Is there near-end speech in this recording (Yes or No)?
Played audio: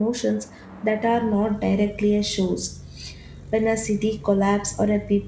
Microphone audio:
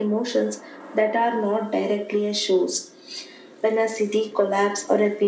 No